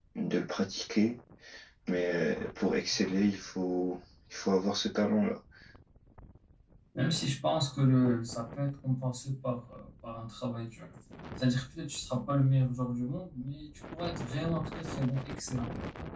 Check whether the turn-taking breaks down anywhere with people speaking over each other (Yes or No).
No